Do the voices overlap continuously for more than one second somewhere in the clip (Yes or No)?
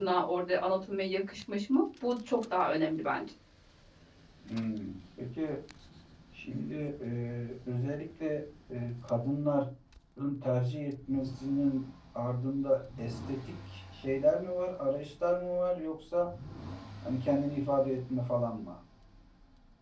No